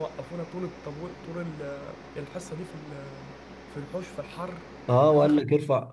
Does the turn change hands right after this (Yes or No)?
Yes